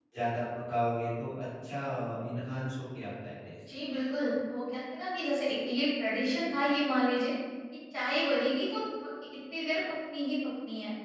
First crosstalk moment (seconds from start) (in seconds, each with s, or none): none